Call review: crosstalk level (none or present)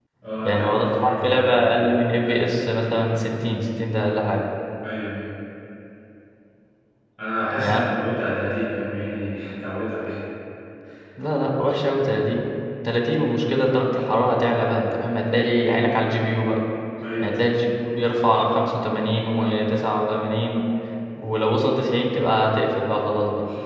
present